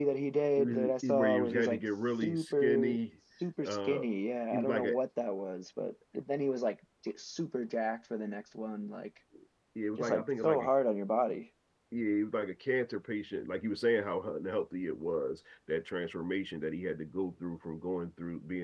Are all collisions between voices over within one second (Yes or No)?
No